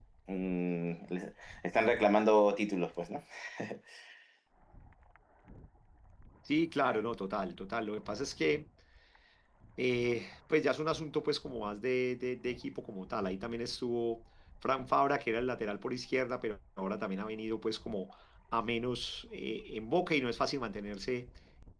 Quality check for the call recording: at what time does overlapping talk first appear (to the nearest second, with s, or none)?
none